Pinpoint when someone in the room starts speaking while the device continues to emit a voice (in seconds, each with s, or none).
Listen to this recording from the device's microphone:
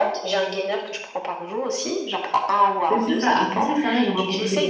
2.9 s